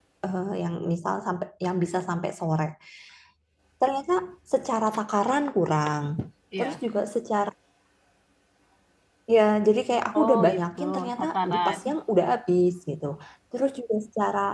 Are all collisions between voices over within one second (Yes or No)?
No